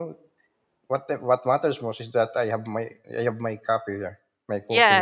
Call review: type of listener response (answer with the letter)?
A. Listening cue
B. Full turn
B